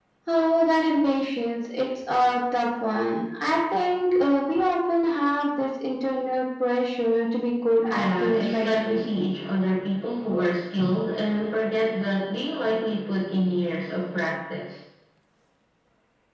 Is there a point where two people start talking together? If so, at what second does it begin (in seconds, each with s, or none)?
7.9 s